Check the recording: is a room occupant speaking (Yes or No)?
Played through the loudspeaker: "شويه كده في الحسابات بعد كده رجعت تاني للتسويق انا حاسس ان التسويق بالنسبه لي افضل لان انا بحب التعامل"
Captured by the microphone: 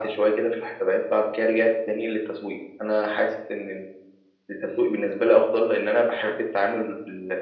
No